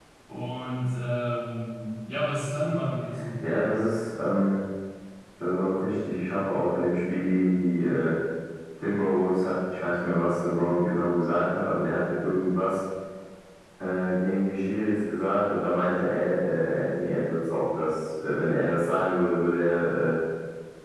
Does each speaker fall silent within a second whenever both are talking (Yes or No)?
Yes